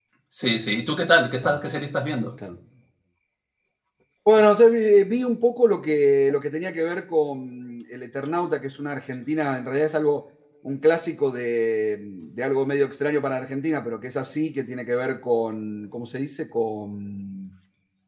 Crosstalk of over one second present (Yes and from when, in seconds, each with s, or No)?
No